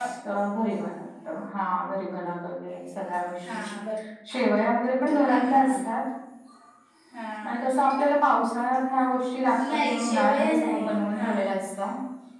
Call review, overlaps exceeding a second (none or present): present